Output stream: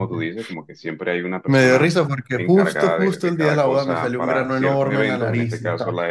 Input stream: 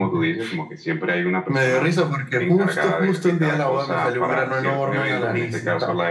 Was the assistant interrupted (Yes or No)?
No